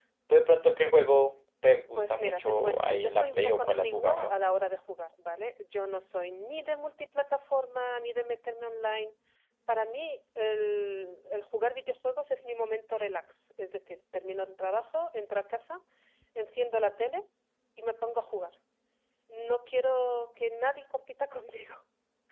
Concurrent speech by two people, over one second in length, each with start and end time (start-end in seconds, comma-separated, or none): 1.9-4.3